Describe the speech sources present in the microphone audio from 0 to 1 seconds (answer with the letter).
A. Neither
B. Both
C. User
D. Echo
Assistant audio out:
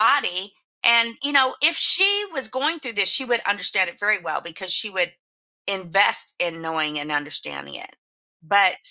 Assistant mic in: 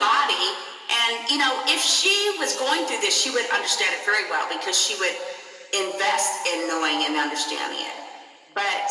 D